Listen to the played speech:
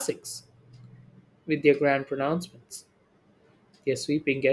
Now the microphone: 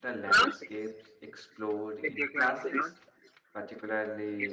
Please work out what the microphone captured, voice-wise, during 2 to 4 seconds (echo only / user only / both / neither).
both